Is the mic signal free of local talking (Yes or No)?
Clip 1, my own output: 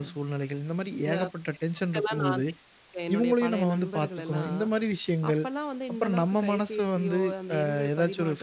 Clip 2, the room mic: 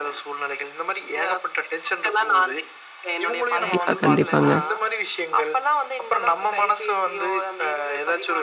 No